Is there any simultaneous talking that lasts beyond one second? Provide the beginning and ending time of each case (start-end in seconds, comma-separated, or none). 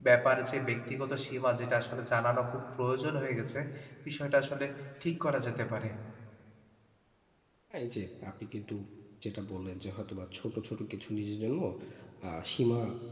none